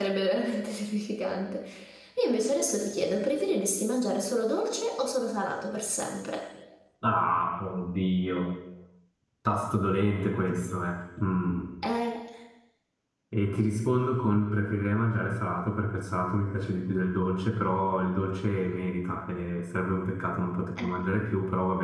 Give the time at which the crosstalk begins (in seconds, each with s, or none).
none